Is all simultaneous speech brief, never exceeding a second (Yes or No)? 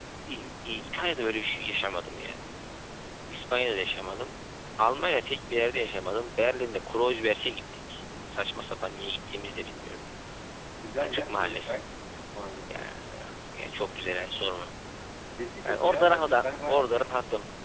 No